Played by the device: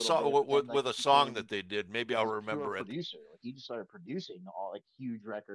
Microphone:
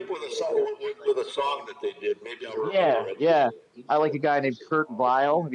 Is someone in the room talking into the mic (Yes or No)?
Yes